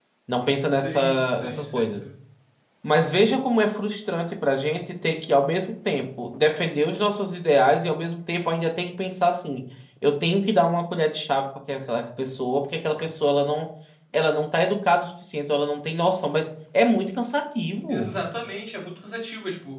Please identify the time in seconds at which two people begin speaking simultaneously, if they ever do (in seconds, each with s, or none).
0.7 s